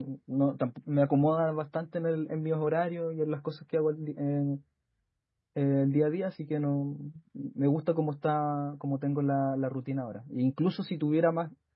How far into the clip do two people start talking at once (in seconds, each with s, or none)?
none